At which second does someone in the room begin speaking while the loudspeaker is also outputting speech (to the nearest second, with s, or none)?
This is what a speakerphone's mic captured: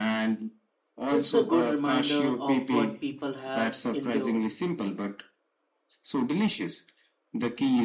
1 s